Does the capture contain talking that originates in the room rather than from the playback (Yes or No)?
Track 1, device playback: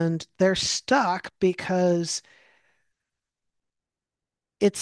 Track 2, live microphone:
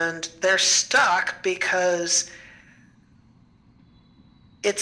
No